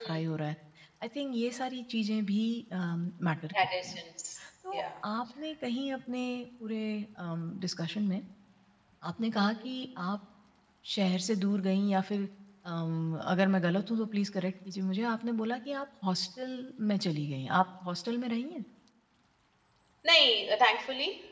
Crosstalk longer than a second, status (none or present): none